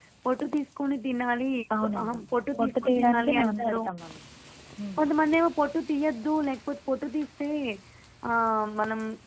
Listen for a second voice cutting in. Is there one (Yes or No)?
Yes